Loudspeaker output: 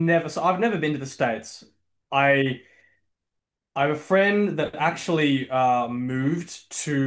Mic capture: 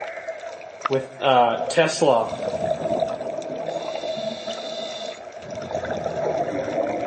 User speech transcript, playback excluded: with uh, Tesla,

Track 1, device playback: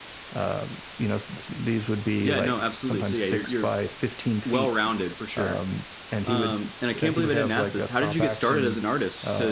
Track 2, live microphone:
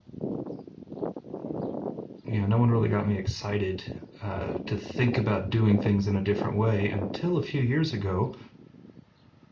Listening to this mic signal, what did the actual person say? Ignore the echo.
you know, no one really got me excited uh, to think about doing things in a different way until a few years ago.

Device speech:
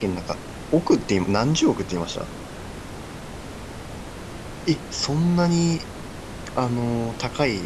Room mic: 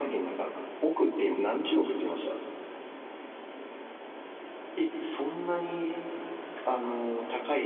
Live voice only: none

